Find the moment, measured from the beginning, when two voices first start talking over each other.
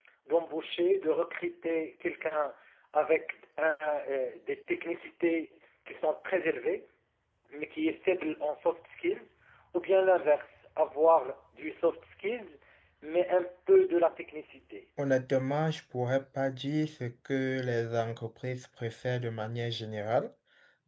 none

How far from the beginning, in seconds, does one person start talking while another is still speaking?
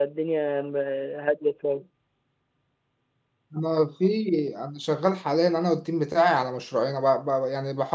none

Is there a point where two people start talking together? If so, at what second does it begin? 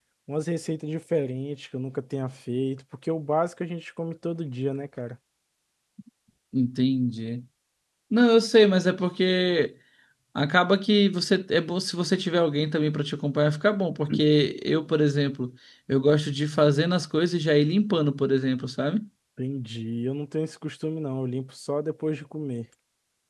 none

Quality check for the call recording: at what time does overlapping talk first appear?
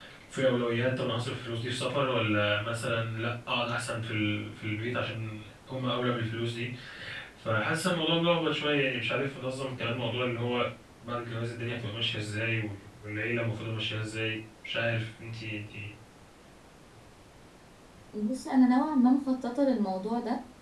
none

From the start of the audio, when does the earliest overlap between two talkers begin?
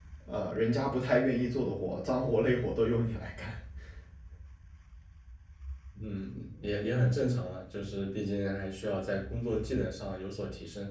none

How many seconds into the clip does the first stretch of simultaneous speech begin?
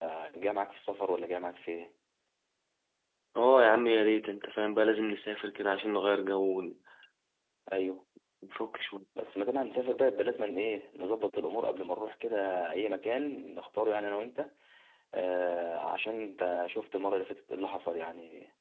none

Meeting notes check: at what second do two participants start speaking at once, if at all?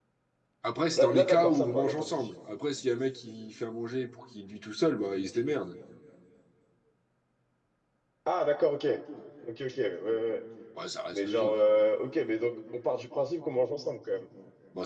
1 s

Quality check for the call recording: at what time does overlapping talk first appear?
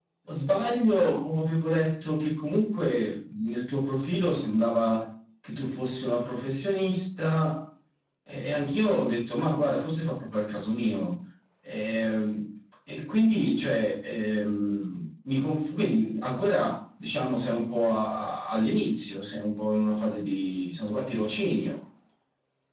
none

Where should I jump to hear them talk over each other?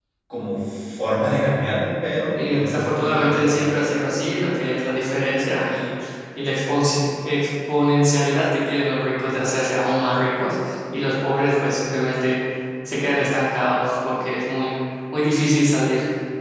2 s

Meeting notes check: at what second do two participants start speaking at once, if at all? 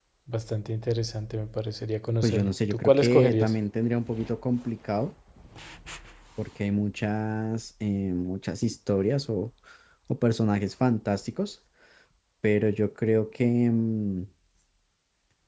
2 s

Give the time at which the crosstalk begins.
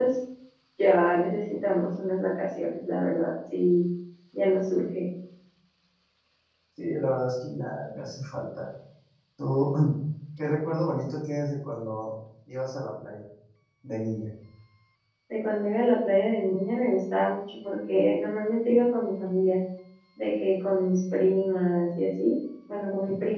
none

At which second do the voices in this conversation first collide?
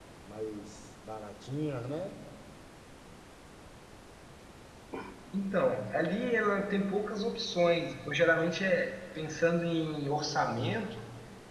none

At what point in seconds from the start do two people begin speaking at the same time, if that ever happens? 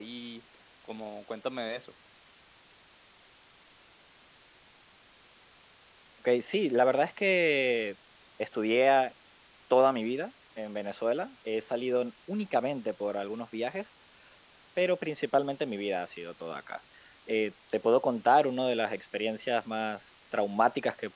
none

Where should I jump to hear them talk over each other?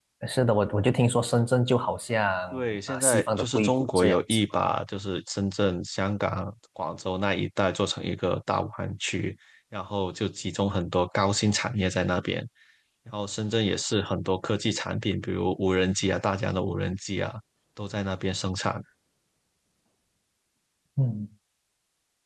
3 s

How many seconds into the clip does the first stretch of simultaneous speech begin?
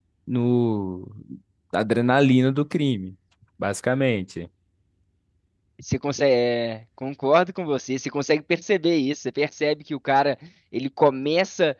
none

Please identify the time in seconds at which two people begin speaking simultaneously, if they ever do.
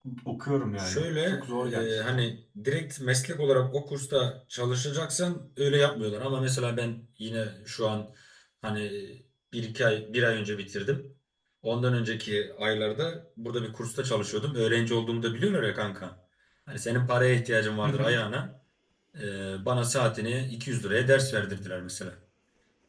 1 s

